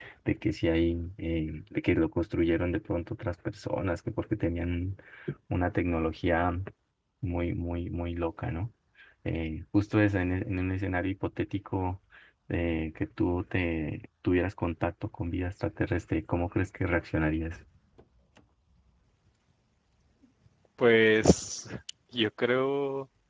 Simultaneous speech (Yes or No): No